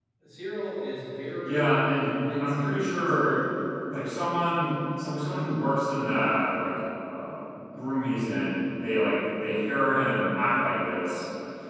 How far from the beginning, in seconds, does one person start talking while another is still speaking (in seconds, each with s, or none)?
1.4 s